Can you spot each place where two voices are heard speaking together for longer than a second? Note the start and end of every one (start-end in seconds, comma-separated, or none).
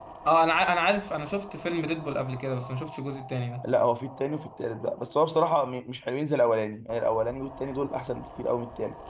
none